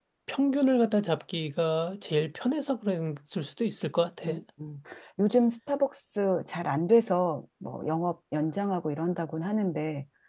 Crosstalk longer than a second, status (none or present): none